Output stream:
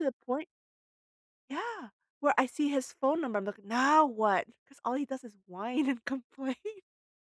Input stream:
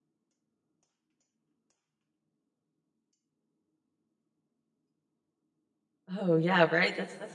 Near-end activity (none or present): present